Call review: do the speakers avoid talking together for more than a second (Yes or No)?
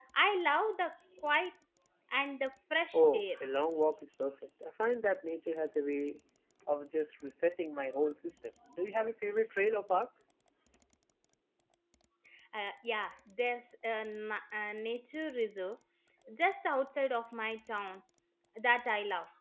Yes